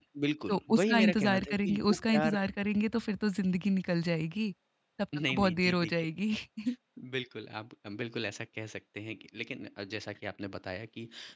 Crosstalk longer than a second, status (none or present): present